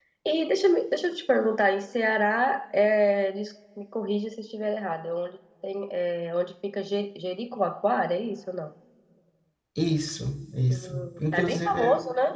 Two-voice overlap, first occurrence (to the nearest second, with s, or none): 11 s